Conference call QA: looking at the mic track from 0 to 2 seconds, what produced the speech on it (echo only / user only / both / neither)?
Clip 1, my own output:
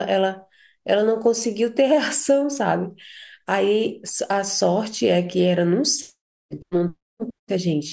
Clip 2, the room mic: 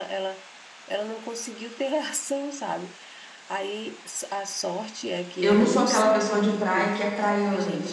echo only